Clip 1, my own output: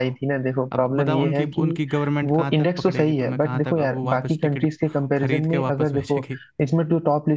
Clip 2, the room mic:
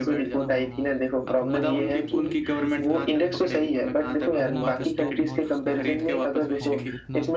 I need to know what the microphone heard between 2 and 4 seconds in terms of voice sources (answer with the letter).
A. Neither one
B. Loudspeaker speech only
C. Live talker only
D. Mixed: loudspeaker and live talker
D